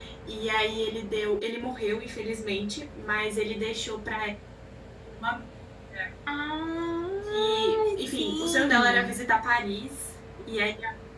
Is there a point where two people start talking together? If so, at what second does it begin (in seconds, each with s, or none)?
7.3 s